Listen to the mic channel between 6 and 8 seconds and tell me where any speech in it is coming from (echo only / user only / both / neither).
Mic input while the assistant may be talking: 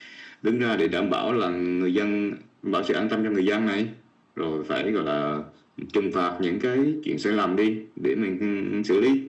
echo only